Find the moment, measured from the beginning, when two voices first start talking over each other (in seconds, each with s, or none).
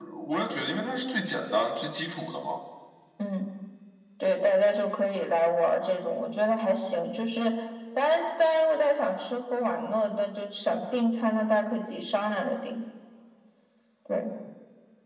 none